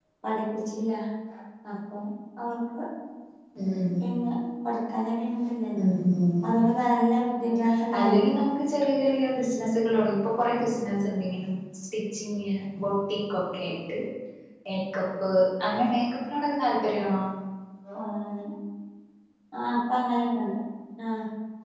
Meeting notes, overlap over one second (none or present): none